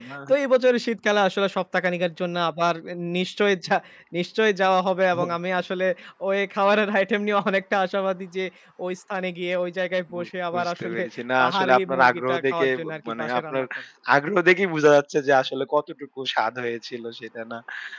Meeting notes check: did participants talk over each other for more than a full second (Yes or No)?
Yes